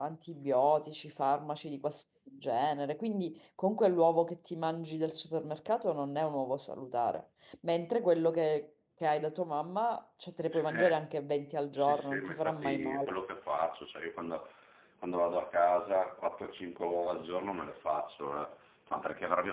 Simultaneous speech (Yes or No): Yes